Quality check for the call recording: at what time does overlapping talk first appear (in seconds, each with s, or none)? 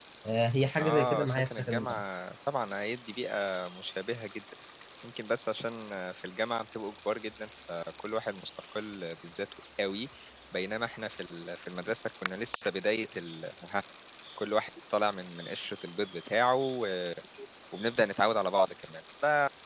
0.8 s